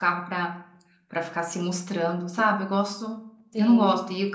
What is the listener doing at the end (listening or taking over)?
listening